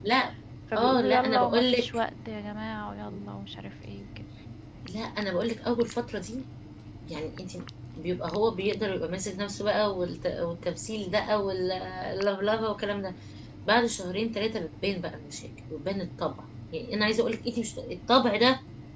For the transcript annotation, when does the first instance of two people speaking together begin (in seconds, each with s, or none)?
0.8 s